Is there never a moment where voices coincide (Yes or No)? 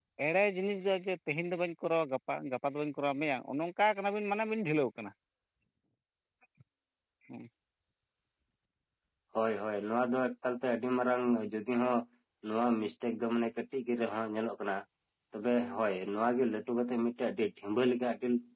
Yes